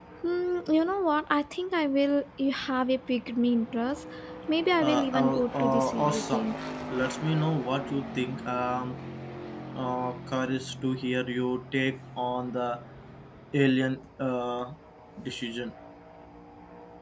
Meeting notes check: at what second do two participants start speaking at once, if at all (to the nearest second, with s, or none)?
5 s